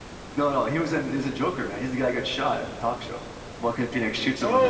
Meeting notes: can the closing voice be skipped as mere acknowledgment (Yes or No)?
No